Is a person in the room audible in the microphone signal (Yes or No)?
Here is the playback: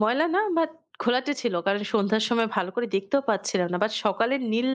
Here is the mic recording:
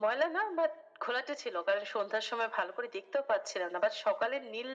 No